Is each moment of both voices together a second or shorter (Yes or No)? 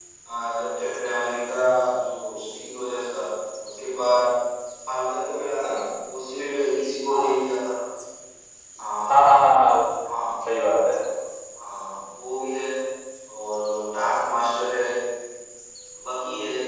Yes